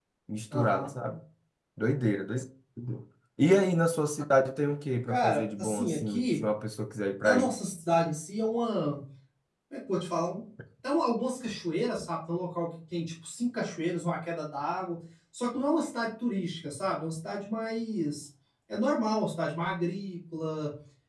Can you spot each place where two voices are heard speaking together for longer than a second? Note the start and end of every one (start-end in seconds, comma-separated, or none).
5.1-6.4